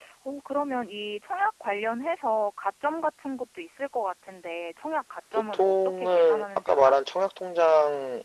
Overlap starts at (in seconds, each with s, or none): 5.5 s